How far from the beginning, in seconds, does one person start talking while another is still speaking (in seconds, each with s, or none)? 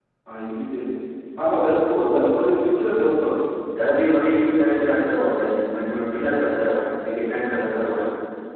none